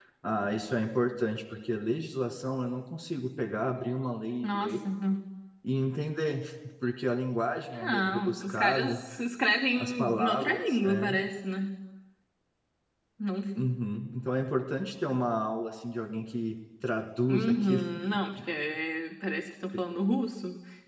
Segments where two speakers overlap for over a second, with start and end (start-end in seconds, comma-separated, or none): 7.7-9.0, 9.8-11.2